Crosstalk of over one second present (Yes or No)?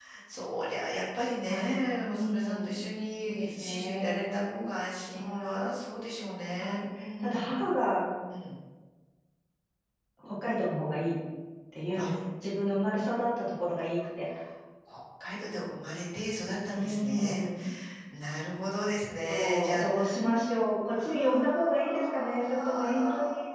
Yes